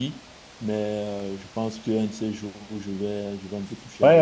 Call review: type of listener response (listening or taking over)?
taking over